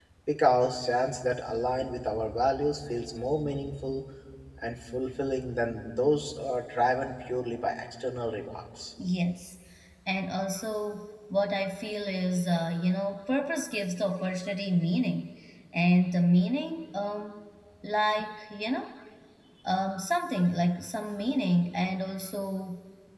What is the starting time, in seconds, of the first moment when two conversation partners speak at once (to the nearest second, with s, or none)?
none